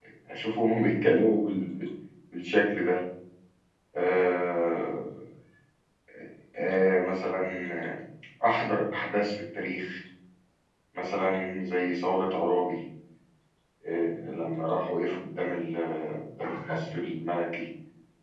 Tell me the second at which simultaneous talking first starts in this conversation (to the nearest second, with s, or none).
none